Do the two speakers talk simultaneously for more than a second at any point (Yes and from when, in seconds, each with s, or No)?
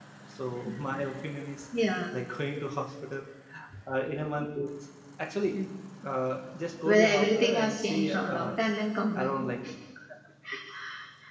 Yes, from 6.8 s